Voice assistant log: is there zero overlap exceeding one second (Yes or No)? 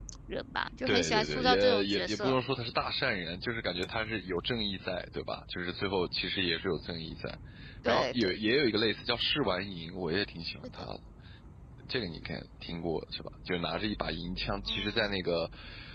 No